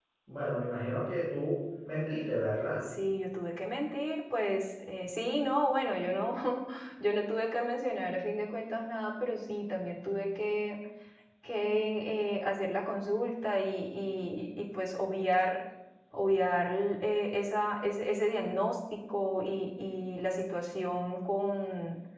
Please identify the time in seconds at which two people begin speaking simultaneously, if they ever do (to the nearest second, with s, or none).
none